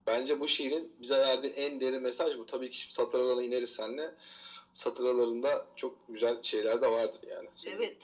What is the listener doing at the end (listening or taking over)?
taking over